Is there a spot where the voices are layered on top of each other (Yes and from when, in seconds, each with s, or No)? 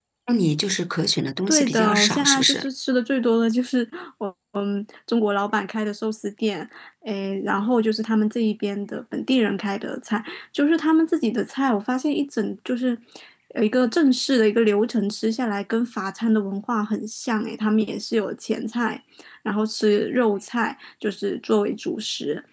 Yes, from 1.5 s